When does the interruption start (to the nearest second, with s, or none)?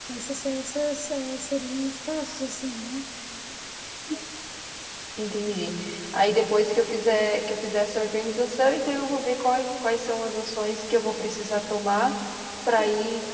none